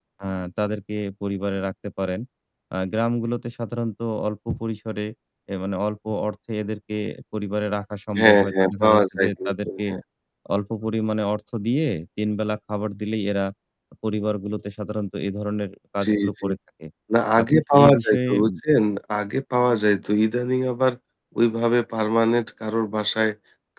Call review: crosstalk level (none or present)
present